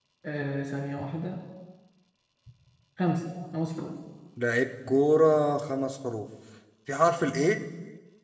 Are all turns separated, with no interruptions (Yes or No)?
Yes